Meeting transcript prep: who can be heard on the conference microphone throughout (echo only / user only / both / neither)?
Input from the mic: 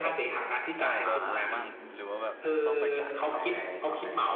both